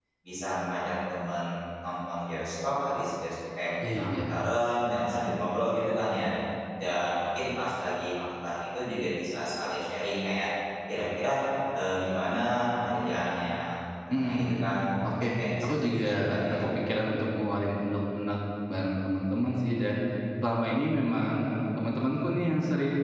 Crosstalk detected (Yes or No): Yes